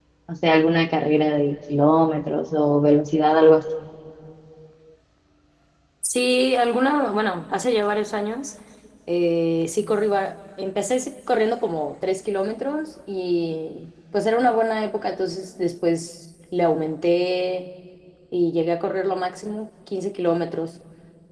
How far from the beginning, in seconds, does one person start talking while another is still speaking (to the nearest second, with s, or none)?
none